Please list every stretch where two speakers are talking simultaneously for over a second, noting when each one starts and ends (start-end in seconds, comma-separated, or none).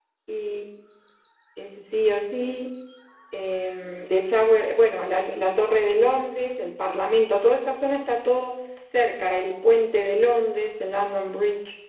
none